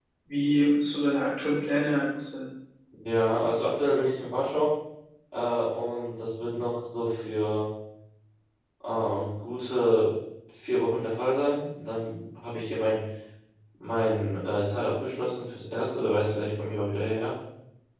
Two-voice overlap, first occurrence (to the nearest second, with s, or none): none